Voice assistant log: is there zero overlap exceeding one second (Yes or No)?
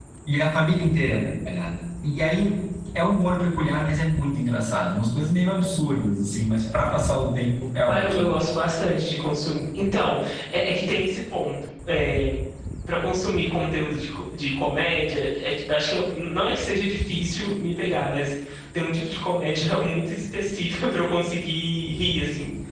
Yes